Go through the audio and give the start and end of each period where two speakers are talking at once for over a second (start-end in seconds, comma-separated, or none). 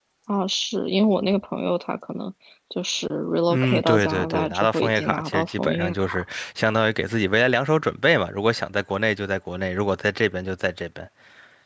3.5-6.2